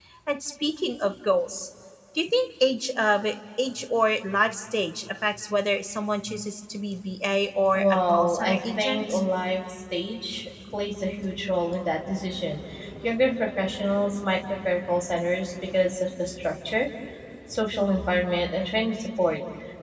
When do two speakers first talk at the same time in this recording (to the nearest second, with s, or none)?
8 s